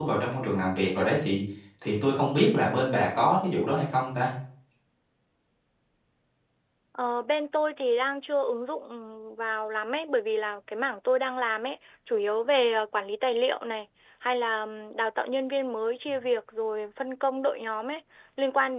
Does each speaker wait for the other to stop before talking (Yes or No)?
Yes